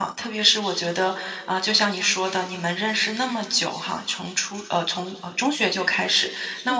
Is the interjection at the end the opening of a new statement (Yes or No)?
No